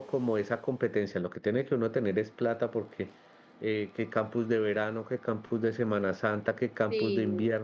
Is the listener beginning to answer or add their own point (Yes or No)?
No